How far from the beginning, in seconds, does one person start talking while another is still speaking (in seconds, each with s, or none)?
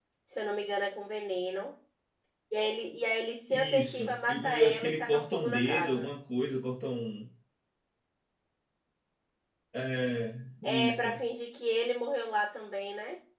3.5 s